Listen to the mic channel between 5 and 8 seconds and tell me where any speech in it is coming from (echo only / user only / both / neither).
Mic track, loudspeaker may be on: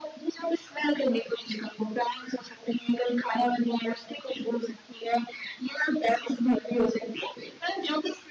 echo only